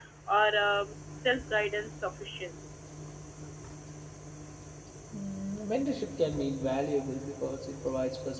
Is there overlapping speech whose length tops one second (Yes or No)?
No